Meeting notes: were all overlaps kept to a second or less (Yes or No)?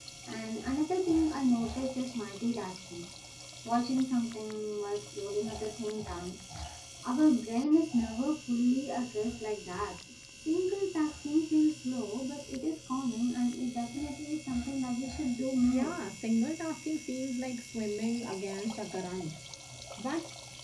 Yes